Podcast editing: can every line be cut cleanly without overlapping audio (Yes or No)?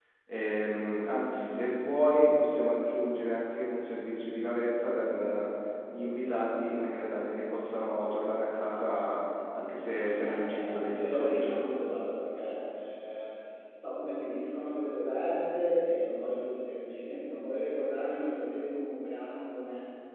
No